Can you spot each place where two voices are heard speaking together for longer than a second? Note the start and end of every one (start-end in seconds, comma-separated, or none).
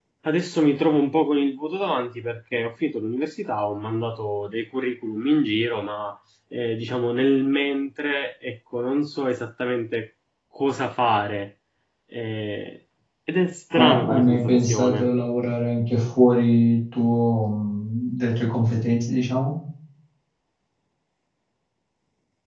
13.8-15.1